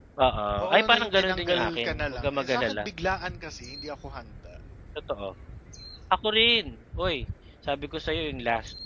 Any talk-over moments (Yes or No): Yes